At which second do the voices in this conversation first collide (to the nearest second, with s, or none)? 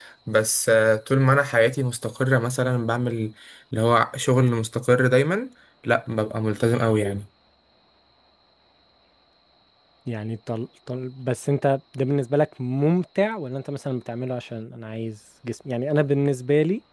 none